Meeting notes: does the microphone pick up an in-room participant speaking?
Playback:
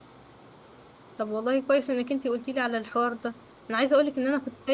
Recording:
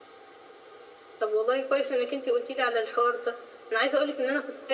No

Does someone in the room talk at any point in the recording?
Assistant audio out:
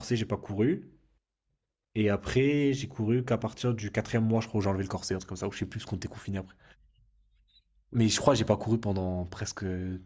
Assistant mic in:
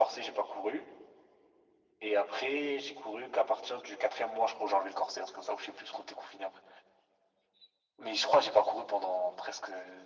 No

